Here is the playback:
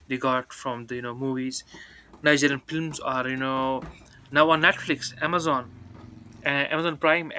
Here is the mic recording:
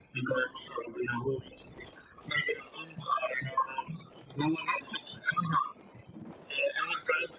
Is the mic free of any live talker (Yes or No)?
Yes